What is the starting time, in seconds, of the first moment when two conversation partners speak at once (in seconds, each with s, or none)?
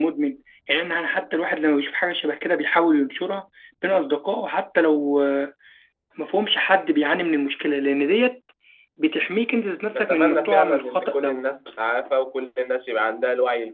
9.9 s